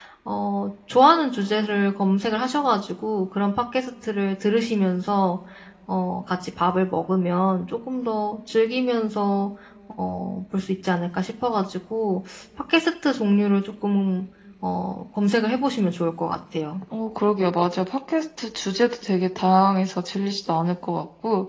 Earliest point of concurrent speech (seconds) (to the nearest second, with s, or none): none